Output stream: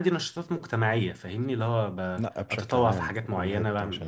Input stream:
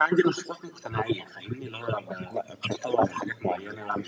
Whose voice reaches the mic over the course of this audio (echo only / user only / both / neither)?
echo only